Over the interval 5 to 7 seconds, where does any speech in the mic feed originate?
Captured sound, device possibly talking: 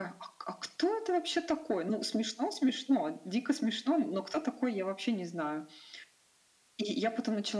echo only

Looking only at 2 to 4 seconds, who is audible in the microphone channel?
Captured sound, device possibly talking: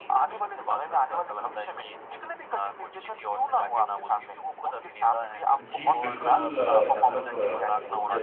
echo only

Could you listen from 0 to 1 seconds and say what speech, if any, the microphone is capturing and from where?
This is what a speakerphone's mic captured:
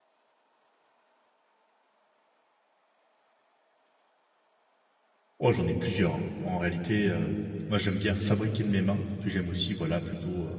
neither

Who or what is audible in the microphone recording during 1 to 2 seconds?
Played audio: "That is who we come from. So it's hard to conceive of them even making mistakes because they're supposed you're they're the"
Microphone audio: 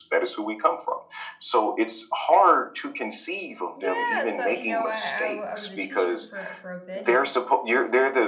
echo only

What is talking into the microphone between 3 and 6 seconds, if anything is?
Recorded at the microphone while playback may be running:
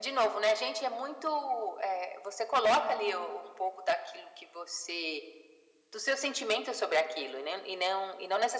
echo only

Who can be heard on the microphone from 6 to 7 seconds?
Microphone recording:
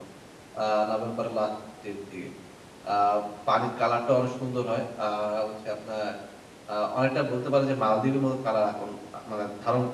user only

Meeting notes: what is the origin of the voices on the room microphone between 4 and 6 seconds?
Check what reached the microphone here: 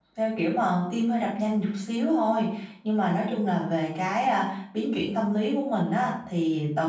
user only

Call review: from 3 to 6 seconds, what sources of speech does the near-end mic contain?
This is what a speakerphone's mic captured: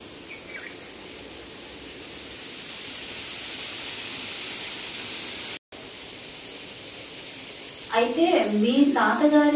neither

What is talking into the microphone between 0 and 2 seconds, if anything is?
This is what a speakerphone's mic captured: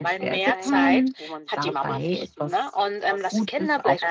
both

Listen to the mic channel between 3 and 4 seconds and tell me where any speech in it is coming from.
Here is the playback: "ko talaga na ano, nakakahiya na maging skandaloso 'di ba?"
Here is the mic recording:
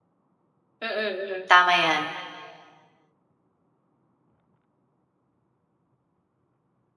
neither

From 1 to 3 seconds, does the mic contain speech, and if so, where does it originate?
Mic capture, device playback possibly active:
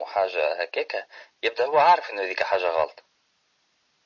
echo only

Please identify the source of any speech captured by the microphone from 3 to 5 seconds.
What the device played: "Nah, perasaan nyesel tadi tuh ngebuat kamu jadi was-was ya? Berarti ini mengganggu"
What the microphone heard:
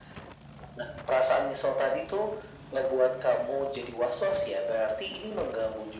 echo only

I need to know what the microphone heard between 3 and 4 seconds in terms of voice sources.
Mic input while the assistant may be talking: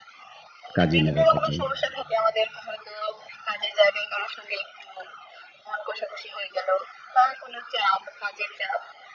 echo only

